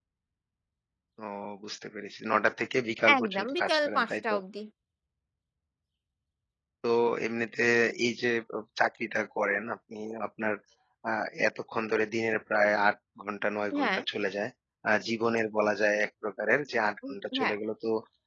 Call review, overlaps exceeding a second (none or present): present